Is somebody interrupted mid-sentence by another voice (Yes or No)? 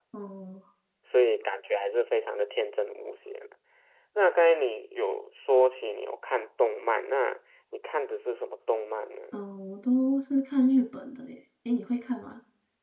No